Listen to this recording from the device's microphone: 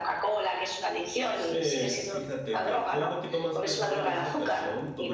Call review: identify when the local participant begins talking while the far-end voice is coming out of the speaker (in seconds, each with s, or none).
1.3 s